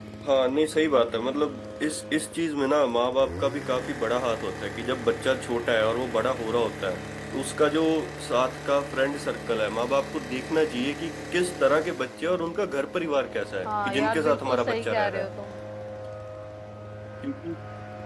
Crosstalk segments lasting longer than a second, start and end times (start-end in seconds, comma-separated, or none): 13.7-15.3